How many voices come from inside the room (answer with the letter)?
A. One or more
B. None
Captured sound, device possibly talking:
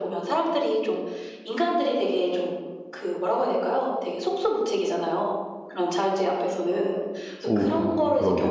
A